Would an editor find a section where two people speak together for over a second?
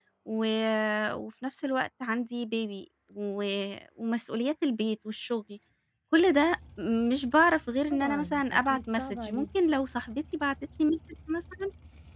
Yes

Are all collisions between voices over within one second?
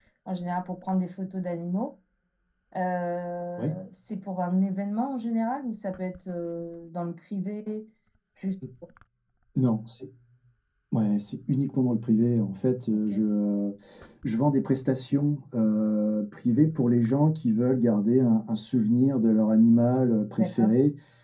Yes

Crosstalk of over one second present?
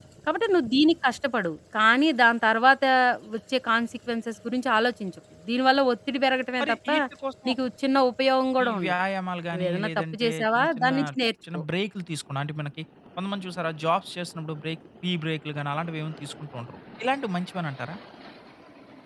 Yes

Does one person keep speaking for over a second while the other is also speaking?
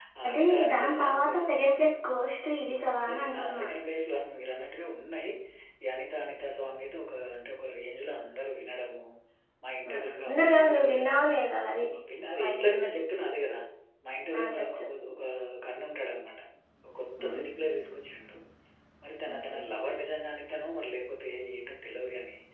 Yes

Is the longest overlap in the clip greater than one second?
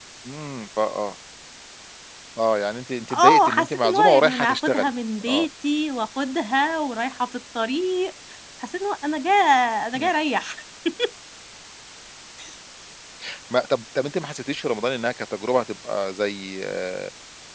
Yes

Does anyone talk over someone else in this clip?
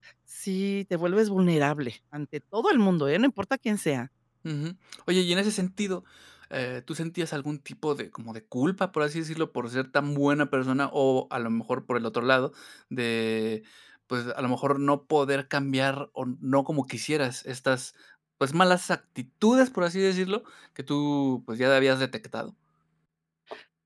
No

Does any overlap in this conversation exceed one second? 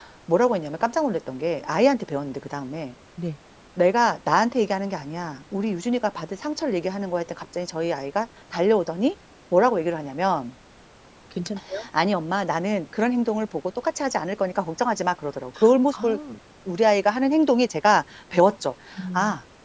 No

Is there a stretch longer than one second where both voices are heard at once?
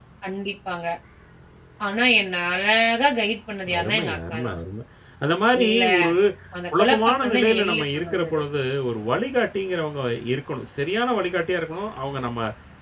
Yes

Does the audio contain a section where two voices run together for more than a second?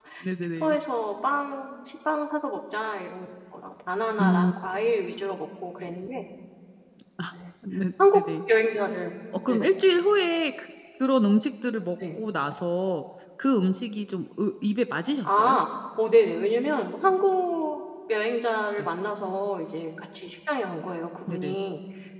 No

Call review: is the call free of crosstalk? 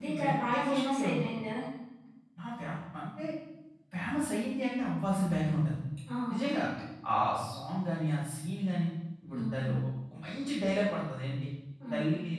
No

